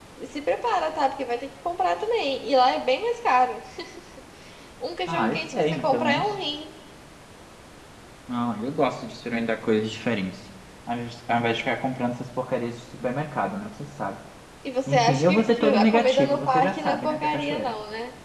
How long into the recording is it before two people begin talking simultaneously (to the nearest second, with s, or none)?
5 s